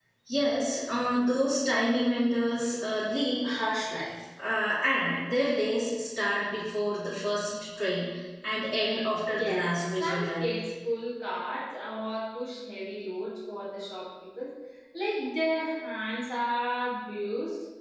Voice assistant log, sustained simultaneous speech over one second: present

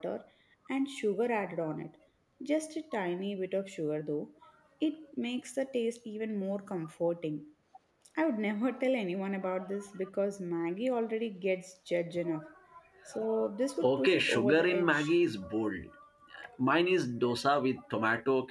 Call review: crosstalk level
present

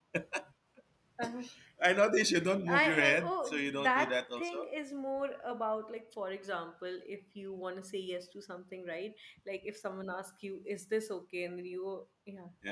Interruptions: present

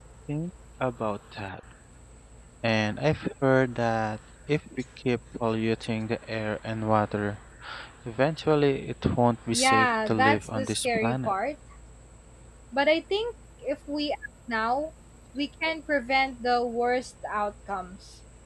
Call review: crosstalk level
present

